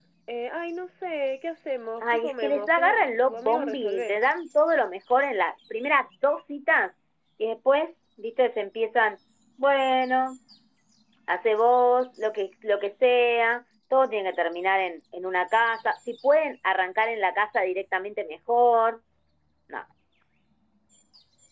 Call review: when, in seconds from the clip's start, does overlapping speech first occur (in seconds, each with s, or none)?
2.0 s